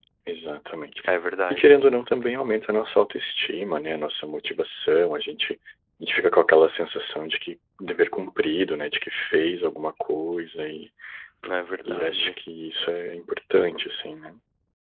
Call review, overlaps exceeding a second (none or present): none